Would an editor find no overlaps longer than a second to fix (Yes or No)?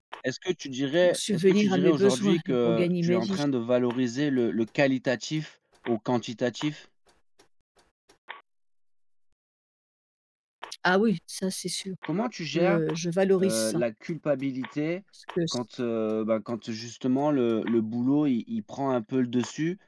No